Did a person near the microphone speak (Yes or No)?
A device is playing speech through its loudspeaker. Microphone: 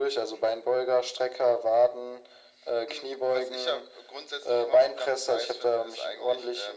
No